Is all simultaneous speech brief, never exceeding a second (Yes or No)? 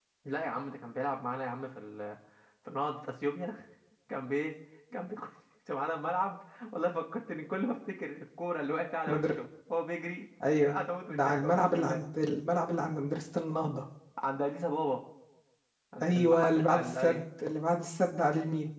No